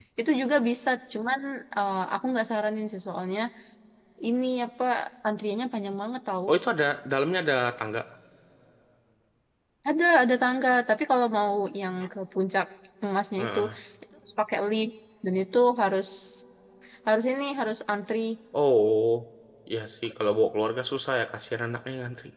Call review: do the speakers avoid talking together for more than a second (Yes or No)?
Yes